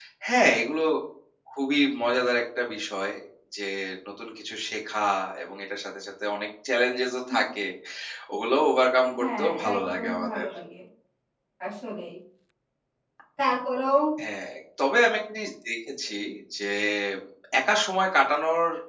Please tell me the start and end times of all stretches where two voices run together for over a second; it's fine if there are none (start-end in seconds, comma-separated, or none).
9.2-10.5